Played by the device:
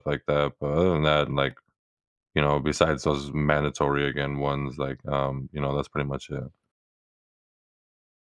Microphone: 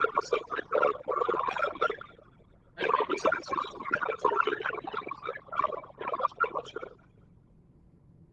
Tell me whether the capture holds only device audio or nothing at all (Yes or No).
No